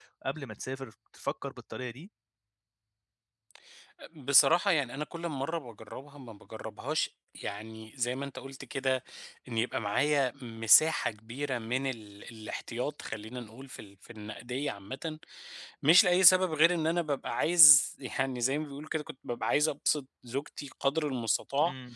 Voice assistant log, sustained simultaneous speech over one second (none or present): none